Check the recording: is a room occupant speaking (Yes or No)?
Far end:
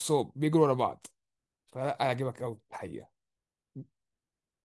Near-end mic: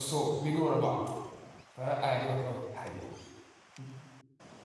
No